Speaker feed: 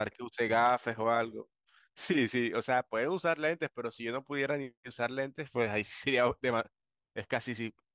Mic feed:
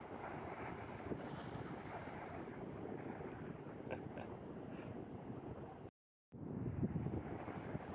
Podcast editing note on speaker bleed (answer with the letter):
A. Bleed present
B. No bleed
B